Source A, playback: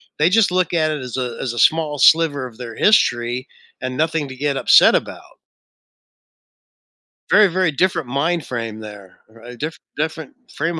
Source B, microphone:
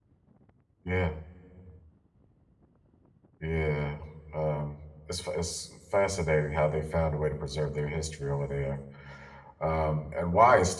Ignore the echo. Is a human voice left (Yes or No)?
Yes